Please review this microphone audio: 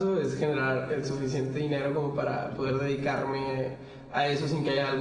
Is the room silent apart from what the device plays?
No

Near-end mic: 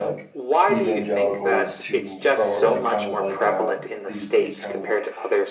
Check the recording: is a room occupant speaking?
Yes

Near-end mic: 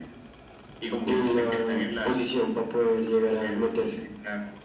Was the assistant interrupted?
No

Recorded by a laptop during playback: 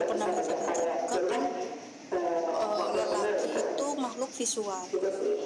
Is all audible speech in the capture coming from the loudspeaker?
No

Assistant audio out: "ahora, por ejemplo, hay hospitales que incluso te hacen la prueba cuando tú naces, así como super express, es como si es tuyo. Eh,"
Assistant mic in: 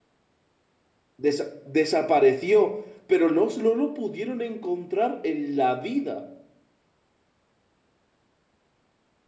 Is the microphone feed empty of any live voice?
No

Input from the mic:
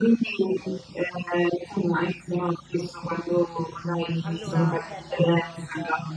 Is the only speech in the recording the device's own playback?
No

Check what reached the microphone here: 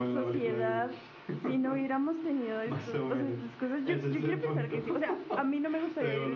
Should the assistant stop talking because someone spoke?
Yes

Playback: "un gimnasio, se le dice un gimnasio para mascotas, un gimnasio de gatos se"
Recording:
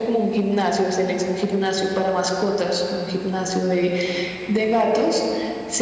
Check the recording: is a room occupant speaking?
No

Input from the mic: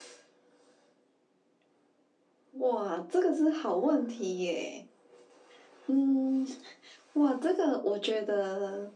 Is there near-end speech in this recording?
No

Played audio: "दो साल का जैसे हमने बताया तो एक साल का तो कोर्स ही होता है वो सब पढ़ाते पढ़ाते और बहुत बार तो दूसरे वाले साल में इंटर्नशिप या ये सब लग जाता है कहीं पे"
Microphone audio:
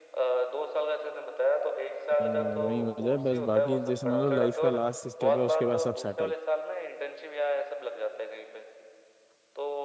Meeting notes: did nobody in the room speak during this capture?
No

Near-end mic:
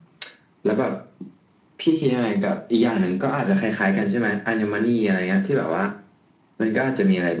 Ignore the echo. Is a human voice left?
No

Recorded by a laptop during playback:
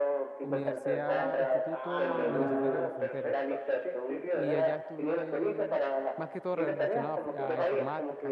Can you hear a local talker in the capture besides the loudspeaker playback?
Yes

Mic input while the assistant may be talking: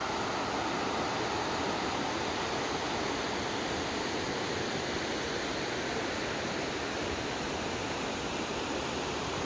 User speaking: No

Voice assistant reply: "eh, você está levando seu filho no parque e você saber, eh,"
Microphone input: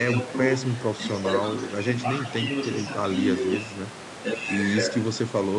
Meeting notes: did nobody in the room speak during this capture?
No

